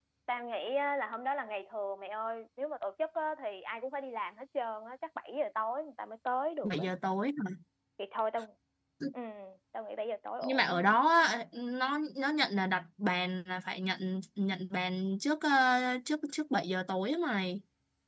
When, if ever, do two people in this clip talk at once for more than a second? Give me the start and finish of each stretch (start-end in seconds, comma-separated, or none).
none